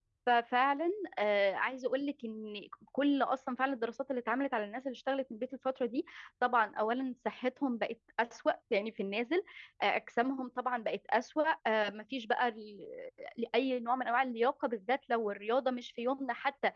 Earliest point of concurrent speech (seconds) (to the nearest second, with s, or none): none